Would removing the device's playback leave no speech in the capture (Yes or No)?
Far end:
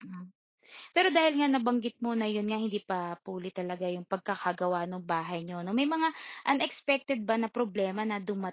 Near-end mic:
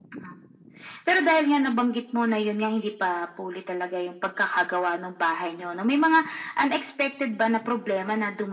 Yes